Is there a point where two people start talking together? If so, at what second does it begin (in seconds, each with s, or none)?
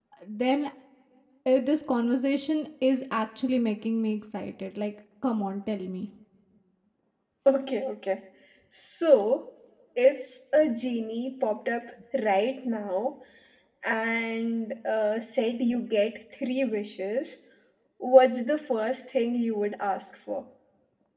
none